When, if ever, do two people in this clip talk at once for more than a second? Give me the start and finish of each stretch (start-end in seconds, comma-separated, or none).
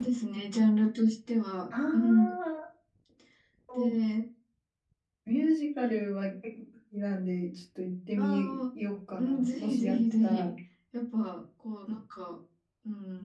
9.2-10.5